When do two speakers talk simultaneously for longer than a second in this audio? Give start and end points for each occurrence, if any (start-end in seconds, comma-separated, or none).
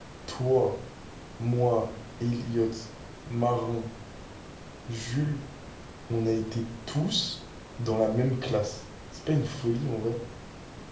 none